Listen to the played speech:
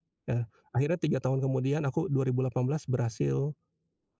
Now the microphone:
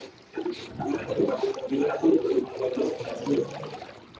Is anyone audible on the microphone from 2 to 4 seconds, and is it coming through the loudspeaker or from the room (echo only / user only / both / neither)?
echo only